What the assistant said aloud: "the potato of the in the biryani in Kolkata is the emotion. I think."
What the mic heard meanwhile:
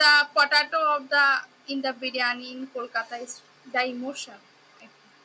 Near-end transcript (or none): none